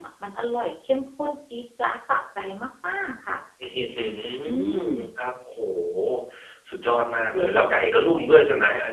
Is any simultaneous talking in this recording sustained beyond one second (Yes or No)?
Yes